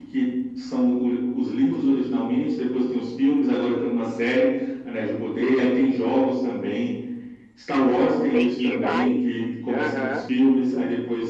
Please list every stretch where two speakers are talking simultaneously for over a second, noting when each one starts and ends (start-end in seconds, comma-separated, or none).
8.3-10.3